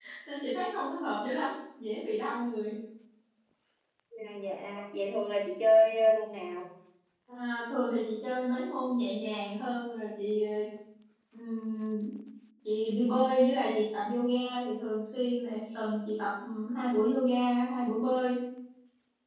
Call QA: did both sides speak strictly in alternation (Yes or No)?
Yes